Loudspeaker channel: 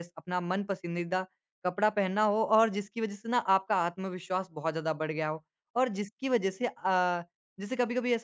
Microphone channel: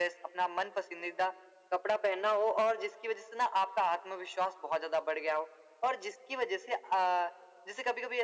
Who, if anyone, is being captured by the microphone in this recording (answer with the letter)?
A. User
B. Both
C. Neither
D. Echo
D